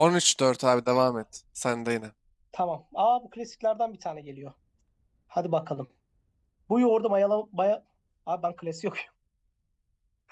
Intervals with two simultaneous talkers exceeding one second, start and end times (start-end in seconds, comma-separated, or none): none